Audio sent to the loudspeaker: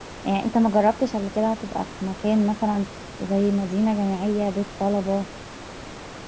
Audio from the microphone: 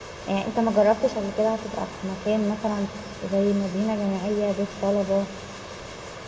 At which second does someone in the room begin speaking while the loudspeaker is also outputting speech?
none

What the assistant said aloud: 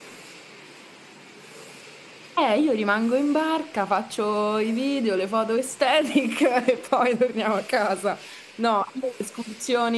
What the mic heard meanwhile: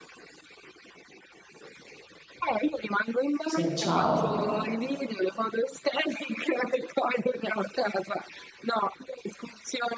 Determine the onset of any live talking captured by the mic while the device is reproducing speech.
3 s

